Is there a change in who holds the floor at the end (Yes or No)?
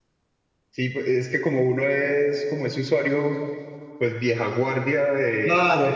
Yes